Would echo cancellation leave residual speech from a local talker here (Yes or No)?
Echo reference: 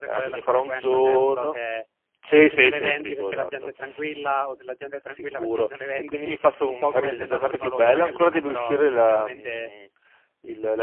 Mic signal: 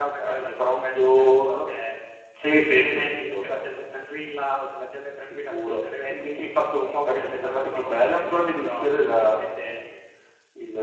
No